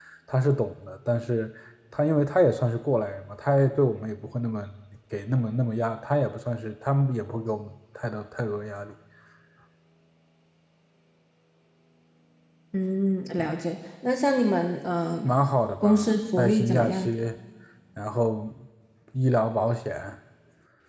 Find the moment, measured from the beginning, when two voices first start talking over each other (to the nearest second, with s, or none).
16 s